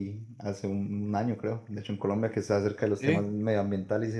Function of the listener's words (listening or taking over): listening